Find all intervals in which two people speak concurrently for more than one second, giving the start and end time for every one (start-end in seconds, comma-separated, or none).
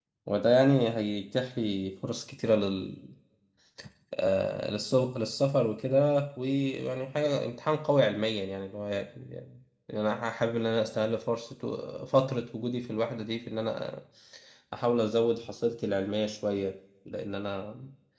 none